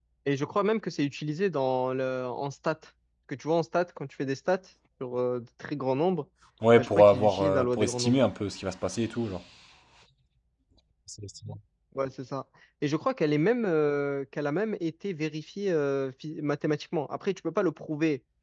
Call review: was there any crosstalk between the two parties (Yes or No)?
Yes